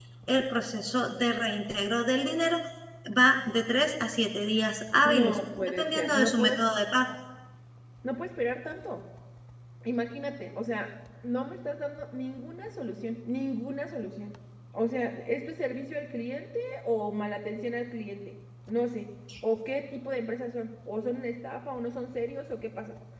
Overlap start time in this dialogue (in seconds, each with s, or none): 5.0 s